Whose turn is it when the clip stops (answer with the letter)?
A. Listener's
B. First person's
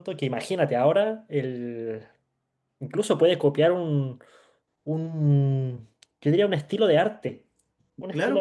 A